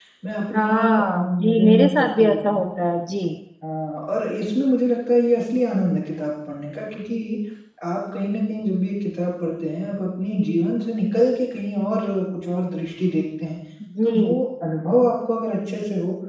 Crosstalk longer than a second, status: present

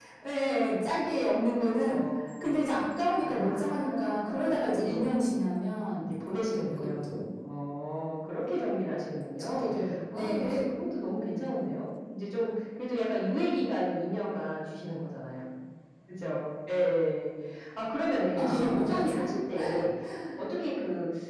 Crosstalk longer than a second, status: present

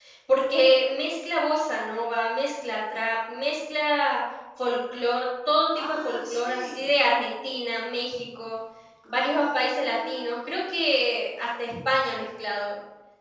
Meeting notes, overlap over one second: present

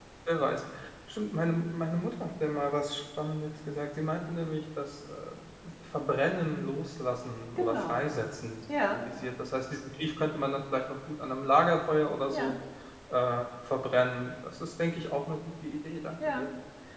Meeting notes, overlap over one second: none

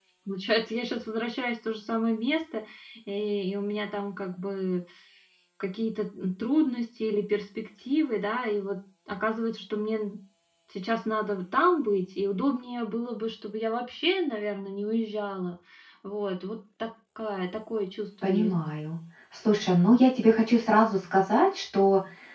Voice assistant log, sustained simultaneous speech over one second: none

